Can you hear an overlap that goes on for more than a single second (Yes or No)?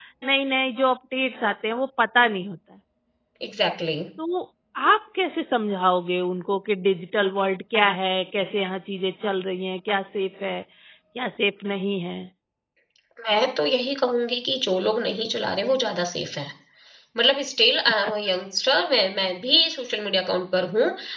No